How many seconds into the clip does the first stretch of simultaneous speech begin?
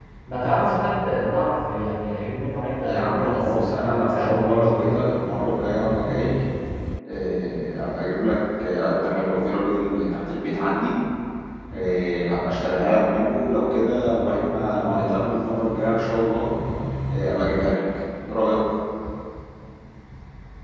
2.8 s

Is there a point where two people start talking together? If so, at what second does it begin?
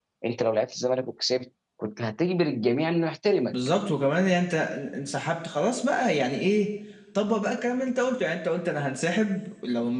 none

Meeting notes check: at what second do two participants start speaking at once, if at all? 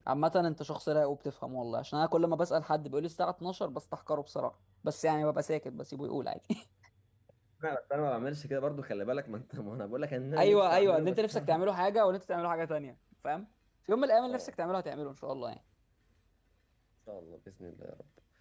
10.4 s

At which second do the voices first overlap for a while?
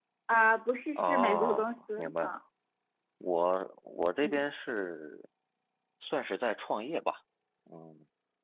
1.0 s

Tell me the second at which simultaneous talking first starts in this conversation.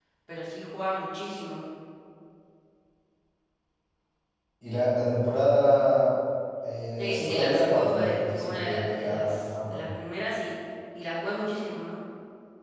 7.0 s

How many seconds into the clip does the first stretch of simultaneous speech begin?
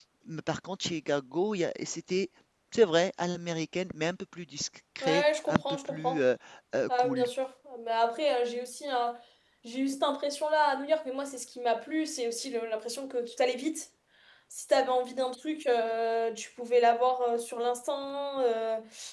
5.0 s

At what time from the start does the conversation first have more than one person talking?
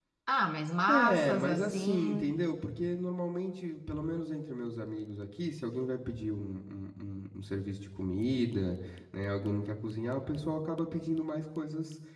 0.9 s

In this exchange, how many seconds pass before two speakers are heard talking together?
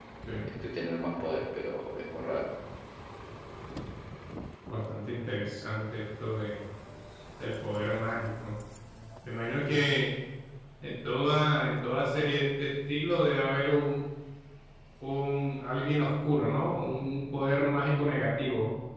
none

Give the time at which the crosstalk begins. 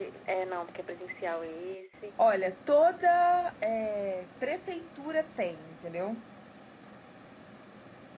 none

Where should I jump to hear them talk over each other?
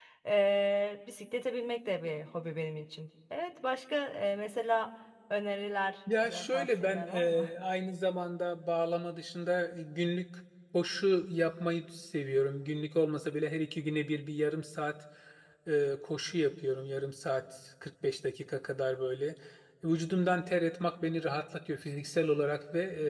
6.1 s

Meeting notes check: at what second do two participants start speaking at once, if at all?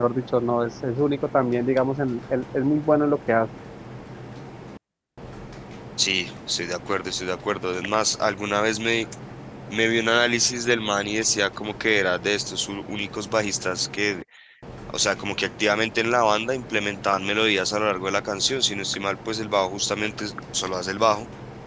none

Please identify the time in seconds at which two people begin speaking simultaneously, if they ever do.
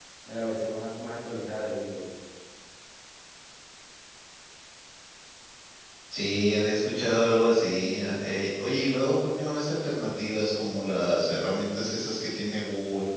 none

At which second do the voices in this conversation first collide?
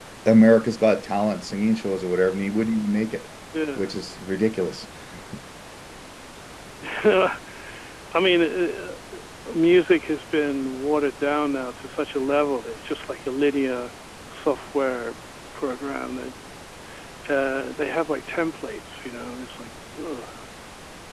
none

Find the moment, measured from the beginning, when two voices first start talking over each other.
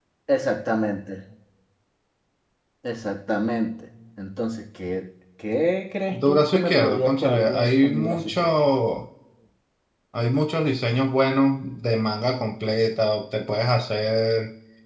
6.1 s

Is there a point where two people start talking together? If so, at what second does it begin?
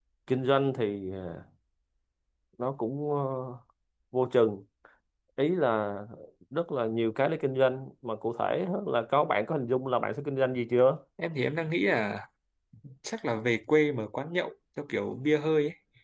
none

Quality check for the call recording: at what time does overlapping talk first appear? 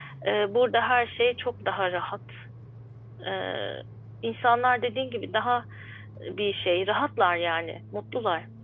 none

